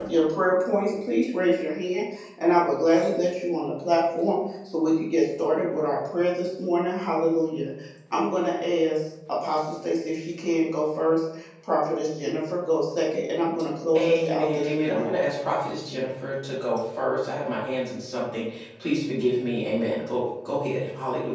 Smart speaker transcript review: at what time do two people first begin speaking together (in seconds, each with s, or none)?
13.9 s